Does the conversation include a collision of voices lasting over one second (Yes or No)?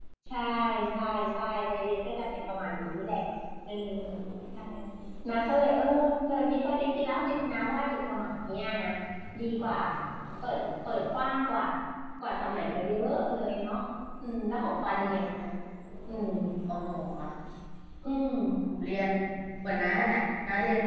No